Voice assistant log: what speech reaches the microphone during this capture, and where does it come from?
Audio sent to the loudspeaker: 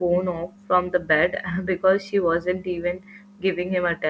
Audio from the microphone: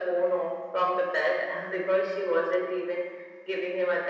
echo only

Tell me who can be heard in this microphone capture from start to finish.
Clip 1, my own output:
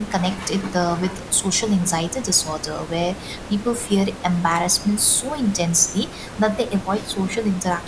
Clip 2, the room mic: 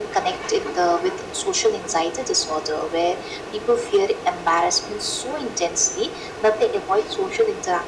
echo only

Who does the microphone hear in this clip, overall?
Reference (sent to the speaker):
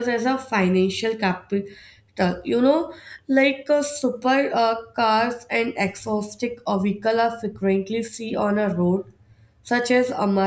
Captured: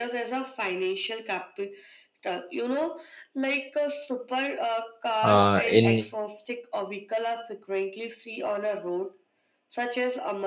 both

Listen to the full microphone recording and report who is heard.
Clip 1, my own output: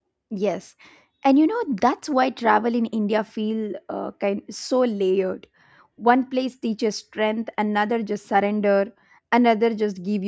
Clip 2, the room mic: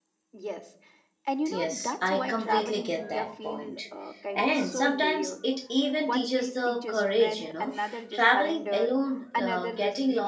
both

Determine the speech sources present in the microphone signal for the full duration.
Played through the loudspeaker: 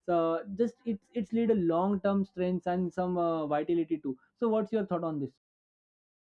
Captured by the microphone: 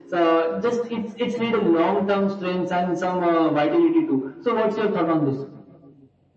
echo only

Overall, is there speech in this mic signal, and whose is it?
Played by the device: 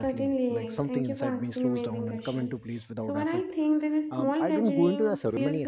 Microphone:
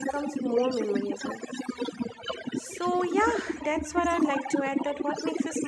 both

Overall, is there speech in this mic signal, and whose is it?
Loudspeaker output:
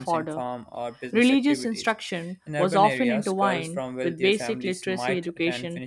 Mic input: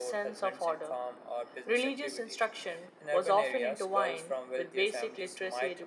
echo only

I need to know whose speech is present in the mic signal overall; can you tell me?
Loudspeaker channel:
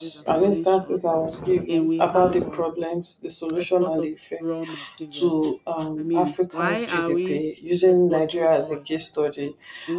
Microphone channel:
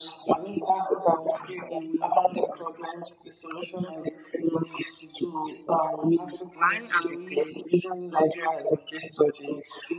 echo only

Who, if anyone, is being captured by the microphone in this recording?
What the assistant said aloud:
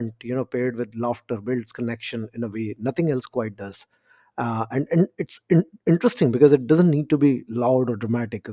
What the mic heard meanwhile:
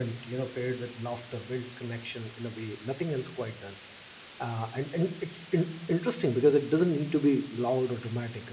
echo only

